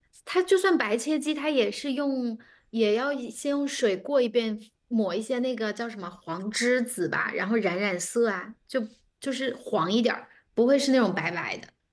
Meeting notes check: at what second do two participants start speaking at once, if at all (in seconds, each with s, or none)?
none